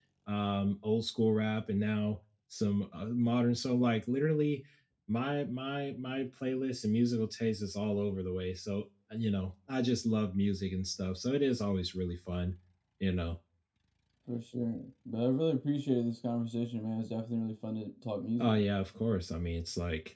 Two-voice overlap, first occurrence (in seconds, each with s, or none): none